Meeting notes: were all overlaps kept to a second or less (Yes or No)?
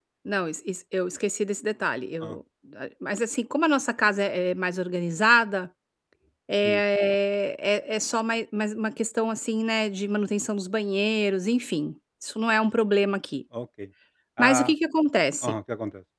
Yes